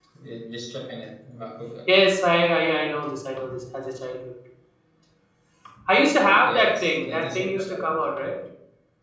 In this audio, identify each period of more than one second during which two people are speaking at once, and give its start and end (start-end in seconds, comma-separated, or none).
6.4-7.9